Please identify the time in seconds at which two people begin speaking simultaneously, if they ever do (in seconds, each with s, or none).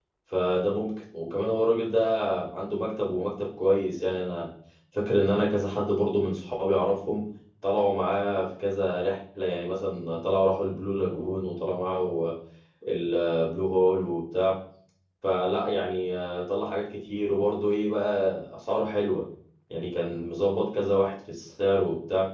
none